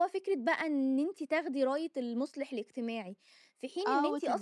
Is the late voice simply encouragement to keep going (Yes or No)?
No